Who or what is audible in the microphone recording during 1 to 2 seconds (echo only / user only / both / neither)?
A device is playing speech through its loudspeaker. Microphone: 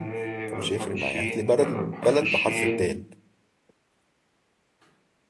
both